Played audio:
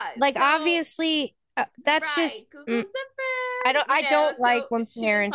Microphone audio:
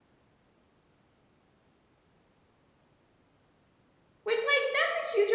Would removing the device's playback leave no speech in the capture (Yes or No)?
No